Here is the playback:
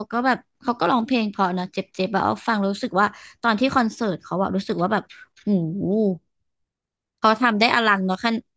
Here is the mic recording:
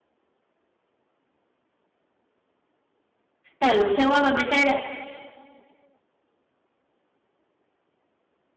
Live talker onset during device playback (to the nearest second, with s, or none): 4 s